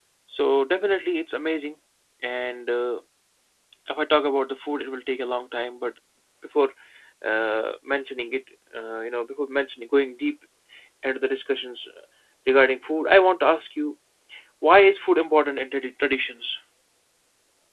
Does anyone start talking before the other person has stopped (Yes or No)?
No